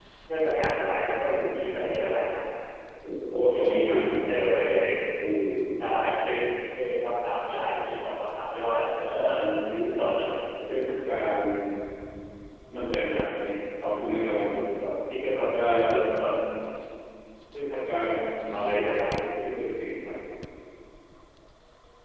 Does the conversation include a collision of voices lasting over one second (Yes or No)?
No